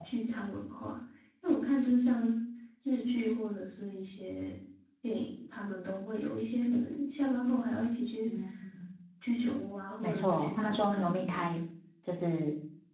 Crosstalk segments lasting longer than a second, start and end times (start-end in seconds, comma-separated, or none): 10.0-11.4